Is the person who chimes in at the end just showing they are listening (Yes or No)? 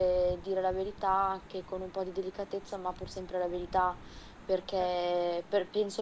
Yes